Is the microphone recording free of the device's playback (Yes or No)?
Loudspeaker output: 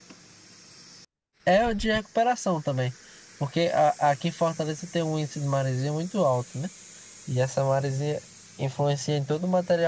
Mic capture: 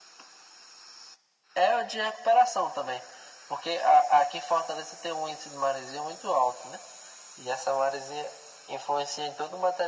No